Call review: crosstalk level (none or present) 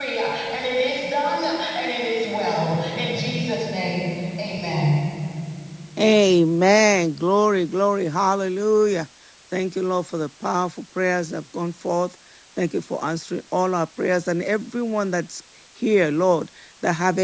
none